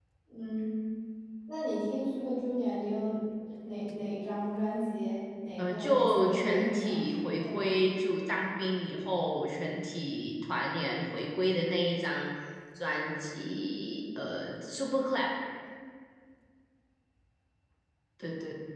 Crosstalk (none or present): present